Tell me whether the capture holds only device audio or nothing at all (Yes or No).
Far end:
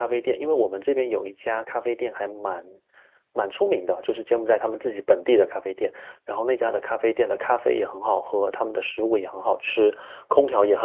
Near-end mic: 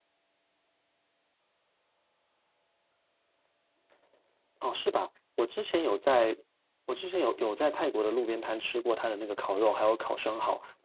No